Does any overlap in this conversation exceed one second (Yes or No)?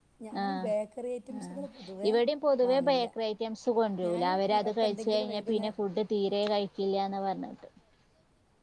Yes